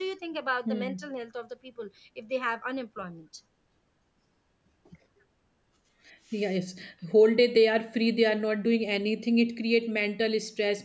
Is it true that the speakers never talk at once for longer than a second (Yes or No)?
Yes